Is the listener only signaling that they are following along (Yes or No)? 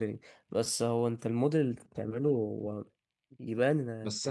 No